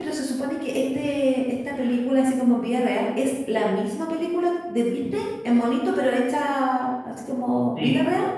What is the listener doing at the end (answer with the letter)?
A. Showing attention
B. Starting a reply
B